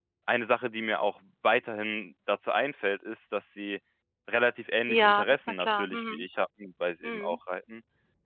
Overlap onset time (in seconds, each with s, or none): 4.9 s